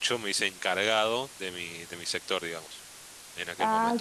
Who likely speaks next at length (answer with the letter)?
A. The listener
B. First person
A